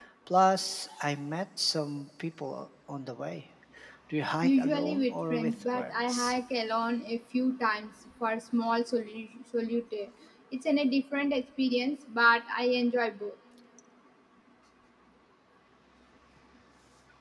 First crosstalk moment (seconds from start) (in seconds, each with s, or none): 4.4 s